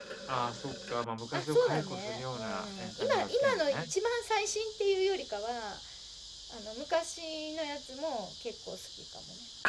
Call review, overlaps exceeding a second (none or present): present